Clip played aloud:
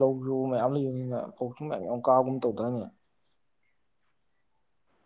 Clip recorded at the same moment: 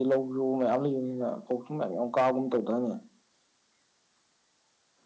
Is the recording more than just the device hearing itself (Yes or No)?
No